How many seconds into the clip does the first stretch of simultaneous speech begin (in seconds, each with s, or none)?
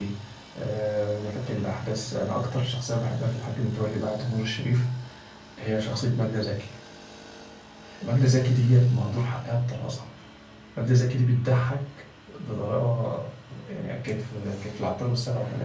none